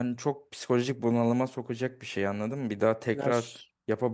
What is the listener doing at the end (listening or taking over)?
listening